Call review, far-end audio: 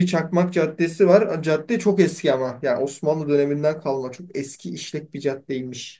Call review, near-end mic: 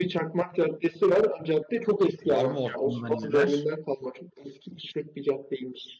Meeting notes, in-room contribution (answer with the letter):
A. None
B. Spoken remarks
B